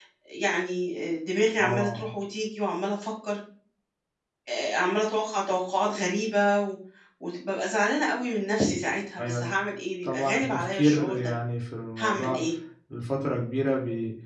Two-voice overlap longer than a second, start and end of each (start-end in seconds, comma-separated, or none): 10.0-11.3